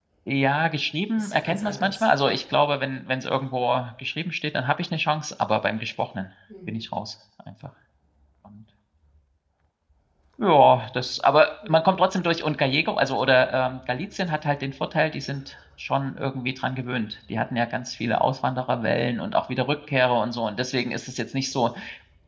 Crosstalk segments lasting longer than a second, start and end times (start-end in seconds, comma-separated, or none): 1.2-2.4